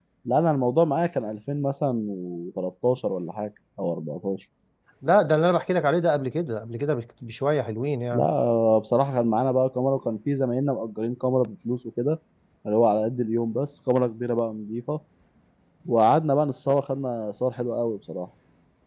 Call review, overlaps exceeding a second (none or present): none